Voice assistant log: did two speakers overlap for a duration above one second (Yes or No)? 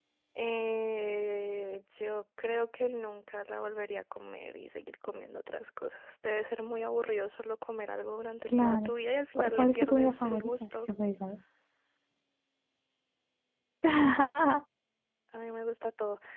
Yes